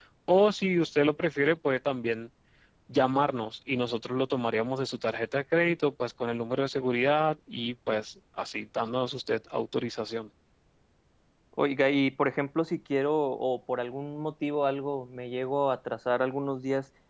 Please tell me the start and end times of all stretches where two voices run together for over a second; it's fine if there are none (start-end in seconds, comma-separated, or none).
none